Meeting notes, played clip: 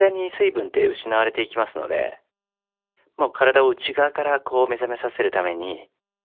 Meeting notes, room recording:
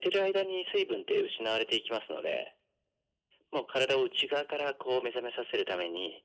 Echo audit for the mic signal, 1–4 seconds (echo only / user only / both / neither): echo only